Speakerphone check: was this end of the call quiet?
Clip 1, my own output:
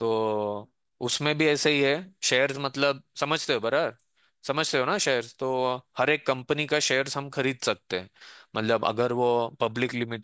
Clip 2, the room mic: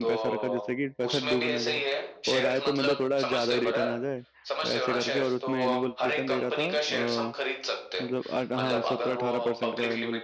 No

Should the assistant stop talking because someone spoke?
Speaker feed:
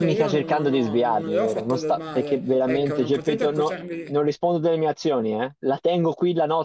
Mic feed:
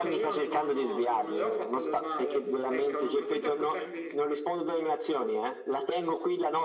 No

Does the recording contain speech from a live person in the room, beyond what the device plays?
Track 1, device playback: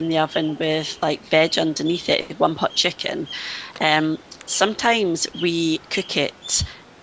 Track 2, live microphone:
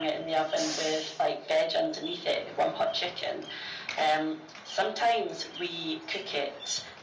No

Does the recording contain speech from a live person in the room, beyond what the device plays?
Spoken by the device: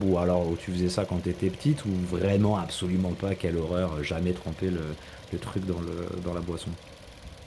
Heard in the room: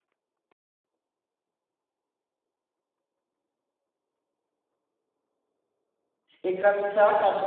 Yes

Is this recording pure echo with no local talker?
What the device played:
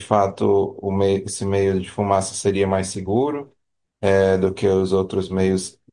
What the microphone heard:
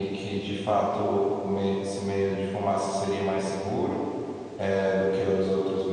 Yes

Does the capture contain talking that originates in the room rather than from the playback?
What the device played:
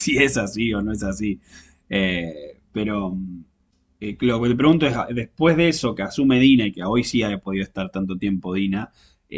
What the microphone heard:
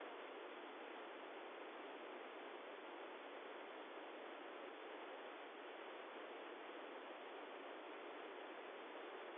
No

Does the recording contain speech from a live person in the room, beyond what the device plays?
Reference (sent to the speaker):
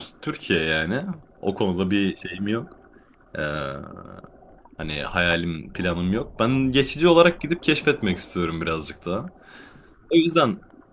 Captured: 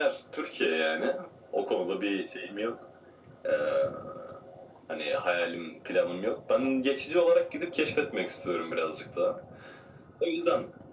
No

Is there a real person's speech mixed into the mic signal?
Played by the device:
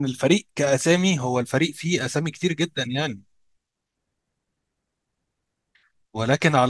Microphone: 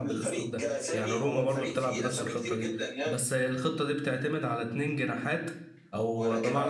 Yes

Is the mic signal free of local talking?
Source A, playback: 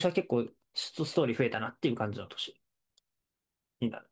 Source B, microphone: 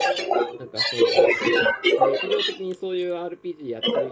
No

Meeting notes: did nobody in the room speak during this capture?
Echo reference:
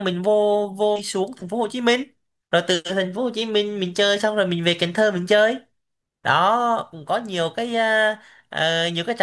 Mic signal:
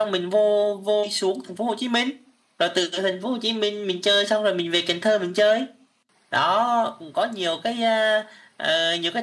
Yes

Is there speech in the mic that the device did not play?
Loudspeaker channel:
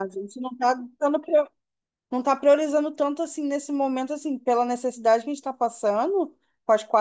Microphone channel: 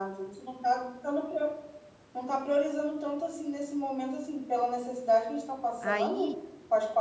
Yes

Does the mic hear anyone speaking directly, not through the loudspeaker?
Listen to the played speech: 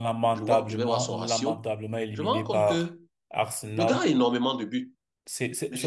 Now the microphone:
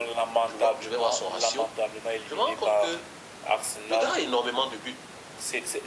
No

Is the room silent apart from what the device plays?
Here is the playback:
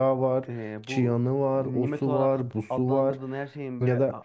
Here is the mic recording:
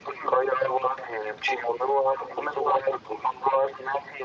Yes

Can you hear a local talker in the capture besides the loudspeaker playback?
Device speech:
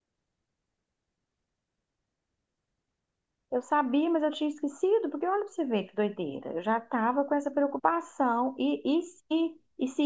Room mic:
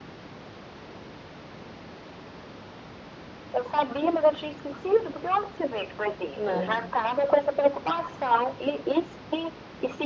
Yes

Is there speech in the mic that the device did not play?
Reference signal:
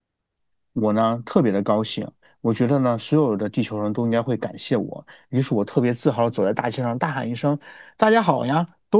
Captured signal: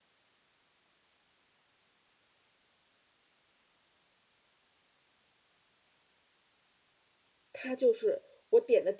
Yes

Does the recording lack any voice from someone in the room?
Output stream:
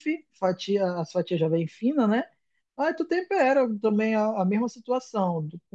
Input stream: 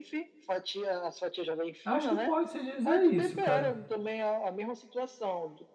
No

